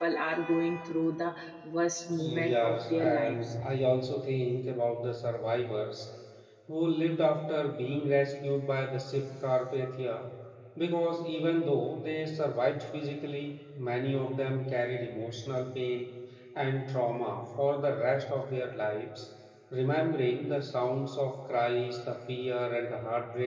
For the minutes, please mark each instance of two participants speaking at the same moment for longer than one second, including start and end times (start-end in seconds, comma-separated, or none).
2.2-3.5